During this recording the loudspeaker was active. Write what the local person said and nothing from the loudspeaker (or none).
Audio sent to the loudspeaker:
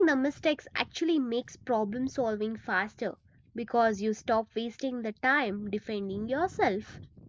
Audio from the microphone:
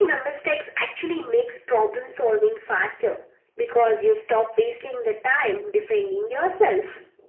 none